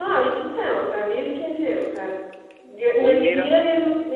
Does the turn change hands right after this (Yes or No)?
No